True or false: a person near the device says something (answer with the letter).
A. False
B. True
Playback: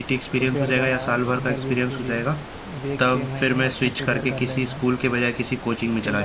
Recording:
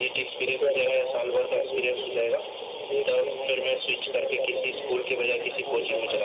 B